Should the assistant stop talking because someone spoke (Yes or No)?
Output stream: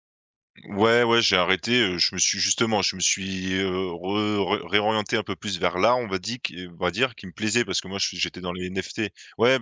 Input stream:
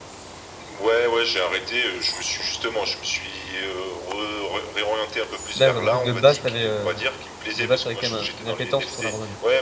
Yes